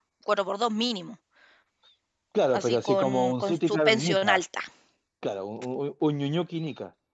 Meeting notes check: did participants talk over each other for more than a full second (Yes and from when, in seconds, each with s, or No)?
Yes, from 2.5 s